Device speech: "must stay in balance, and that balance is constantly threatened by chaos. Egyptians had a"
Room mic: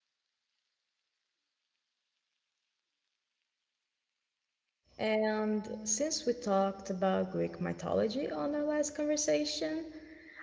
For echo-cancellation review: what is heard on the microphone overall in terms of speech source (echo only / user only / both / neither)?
user only